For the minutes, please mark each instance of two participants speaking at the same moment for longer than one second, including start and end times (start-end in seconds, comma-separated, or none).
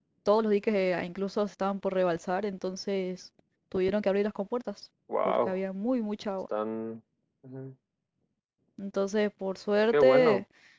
none